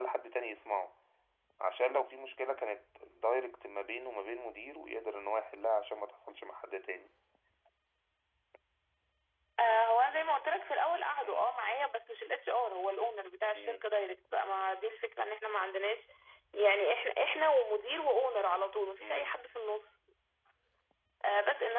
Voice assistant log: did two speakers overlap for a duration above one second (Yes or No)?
No